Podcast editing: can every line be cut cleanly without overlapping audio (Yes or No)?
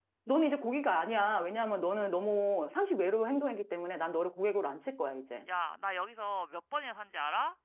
Yes